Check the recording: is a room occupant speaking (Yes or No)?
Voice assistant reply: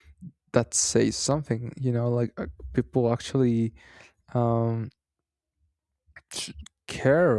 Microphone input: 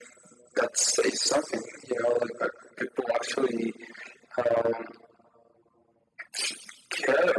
No